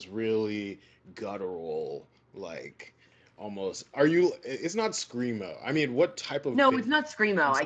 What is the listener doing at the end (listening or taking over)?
taking over